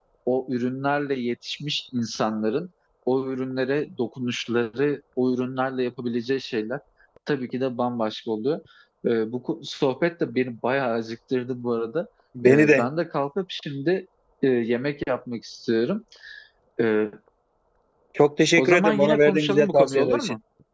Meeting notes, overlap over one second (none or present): present